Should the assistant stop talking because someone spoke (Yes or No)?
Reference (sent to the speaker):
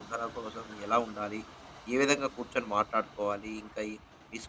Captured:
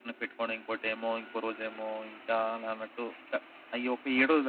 Yes